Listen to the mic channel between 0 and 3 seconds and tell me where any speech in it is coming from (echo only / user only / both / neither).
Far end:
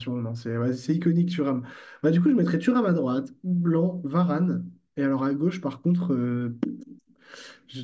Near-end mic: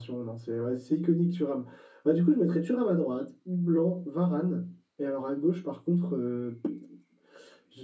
echo only